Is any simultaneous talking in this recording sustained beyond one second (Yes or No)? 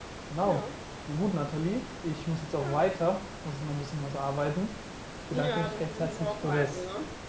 Yes